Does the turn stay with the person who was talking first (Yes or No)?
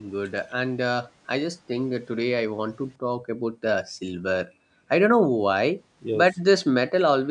Yes